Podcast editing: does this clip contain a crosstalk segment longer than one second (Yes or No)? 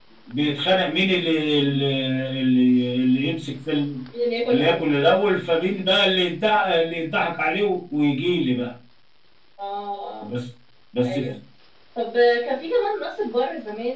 No